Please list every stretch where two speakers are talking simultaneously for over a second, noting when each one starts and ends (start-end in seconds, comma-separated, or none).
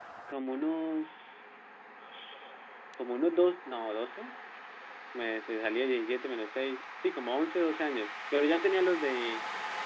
none